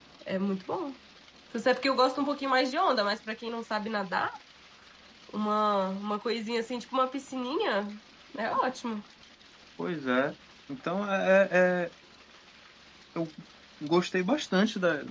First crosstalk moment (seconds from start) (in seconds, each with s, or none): none